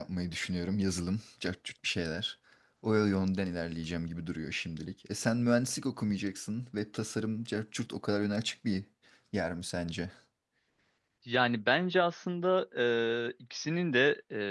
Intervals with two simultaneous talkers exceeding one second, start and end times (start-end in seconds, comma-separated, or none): none